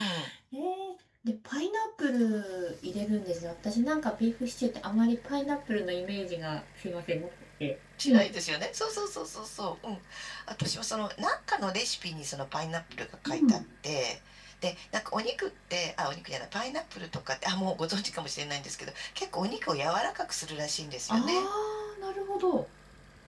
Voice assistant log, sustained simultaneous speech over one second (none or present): none